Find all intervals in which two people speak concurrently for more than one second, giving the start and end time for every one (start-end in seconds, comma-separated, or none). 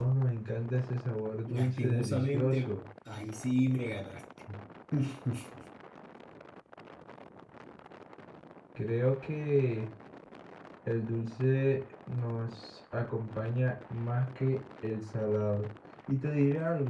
1.5-2.7